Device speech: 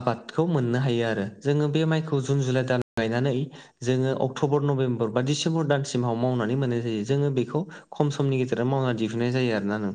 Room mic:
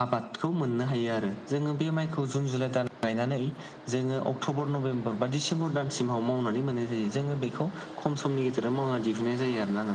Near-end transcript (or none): none